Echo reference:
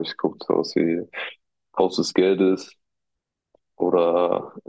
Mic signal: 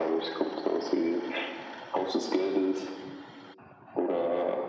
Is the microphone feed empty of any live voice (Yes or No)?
Yes